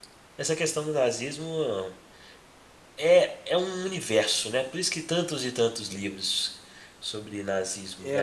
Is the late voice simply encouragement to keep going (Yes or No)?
No